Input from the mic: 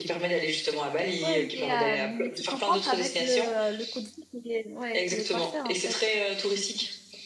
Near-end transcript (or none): Ouais, mais, euh, mais tu compenses avec le, euh, le coût de vie qui est, ouais, qui est pas cher en fait.